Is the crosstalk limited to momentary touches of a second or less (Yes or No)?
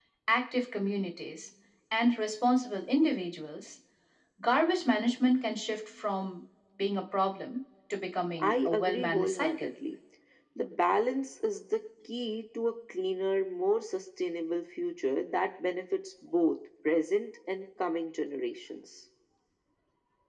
No